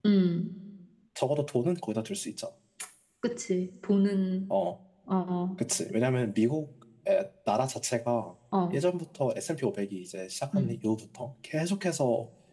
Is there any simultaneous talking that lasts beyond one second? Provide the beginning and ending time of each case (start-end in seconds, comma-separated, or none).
none